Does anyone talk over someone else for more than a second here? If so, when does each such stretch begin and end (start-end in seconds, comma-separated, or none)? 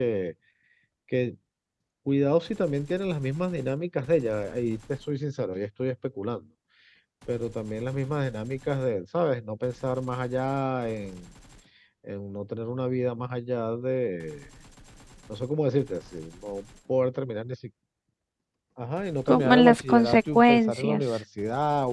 19.3-21.0